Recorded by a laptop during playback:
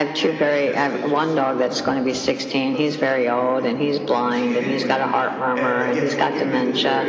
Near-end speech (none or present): present